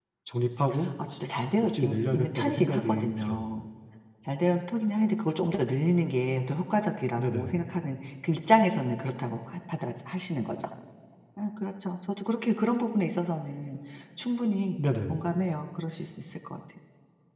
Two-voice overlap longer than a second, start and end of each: 1.6-3.5

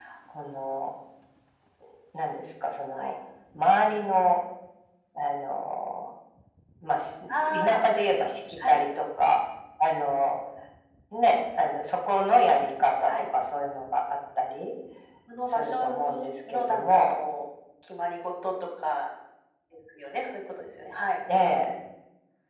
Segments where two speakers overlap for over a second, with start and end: 15.5-17.0

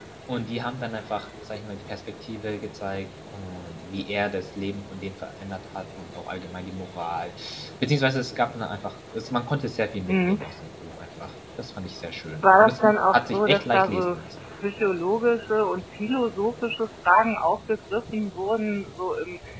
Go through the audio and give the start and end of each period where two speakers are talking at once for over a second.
12.4-14.2

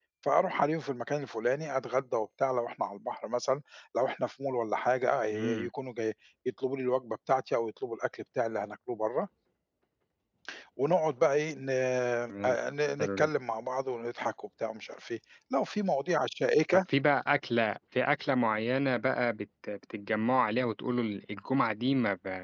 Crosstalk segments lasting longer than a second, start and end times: none

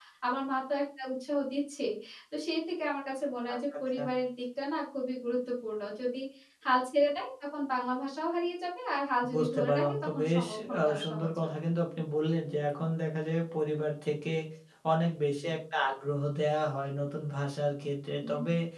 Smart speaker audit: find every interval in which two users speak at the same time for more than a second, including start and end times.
9.3-11.3

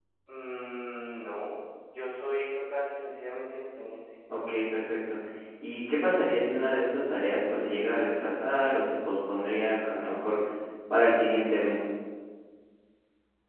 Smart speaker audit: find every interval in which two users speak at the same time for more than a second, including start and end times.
none

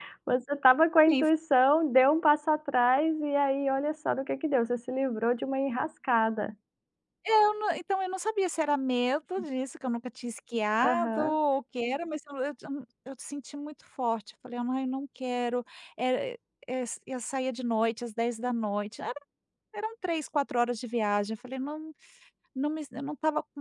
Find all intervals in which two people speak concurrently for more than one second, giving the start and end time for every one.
none

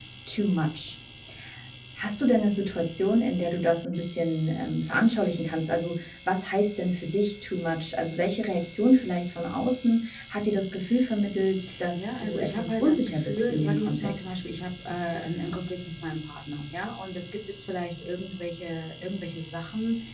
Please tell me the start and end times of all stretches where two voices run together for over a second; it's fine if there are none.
11.9-14.2

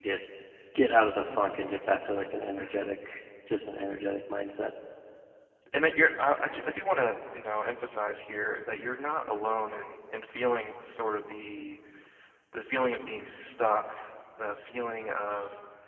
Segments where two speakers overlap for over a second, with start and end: none

